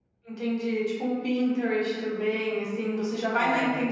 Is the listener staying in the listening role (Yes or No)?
Yes